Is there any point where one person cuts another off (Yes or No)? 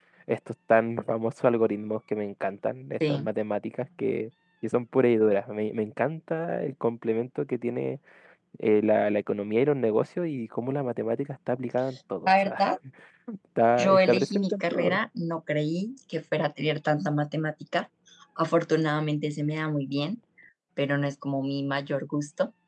Yes